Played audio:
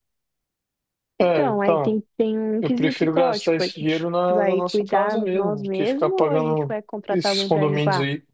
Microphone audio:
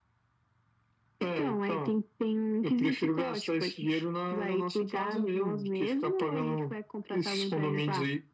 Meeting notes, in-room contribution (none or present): none